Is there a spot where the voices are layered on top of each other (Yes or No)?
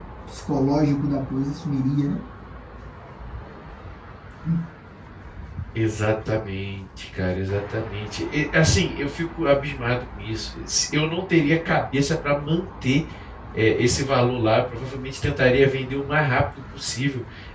No